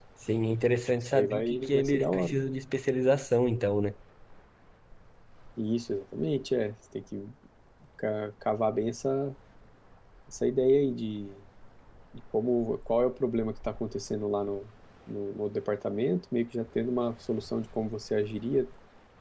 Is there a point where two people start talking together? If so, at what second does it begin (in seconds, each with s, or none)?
1.0 s